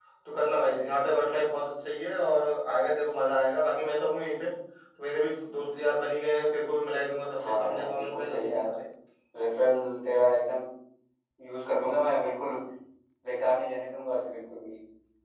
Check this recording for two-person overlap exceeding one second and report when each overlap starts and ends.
7.5-8.7

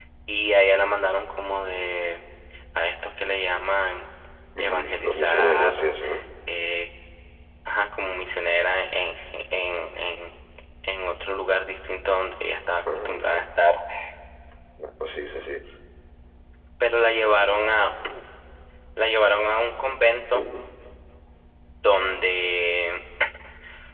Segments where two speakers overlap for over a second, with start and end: 4.6-5.9

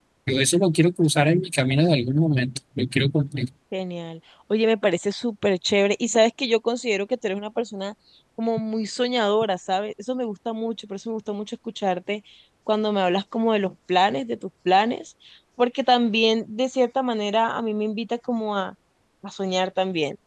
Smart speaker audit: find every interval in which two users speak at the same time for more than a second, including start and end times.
none

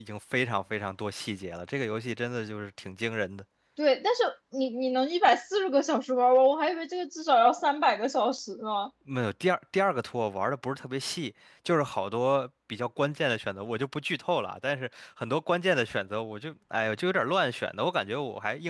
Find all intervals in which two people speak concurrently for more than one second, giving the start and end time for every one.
none

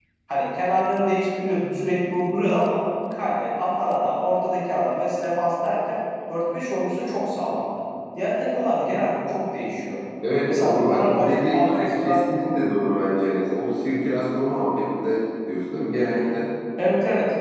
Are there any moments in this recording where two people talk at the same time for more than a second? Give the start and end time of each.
10.5-12.6

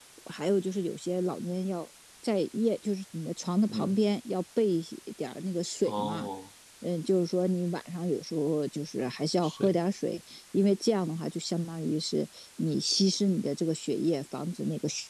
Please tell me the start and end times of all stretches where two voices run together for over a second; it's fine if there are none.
none

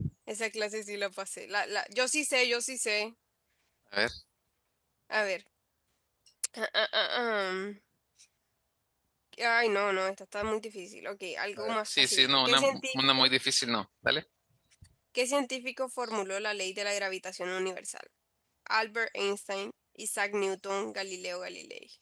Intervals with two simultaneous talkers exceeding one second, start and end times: 11.8-13.2

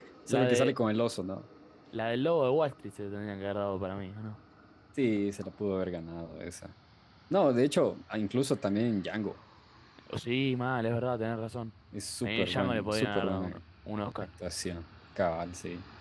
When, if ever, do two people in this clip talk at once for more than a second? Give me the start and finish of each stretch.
12.2-13.6

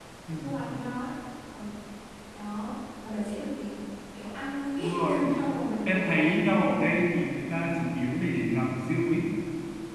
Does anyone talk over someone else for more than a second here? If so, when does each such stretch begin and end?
none

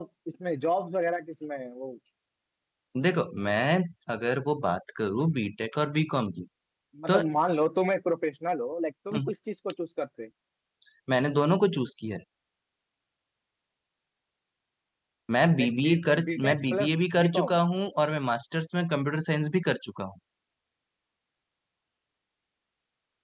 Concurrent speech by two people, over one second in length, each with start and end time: 15.6-17.6

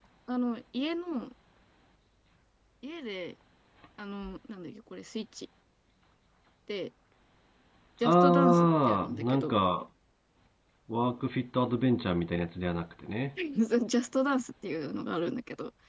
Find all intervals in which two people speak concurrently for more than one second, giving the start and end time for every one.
8.0-9.5

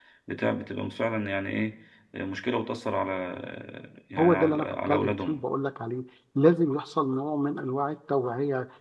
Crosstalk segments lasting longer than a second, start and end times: 4.2-5.4

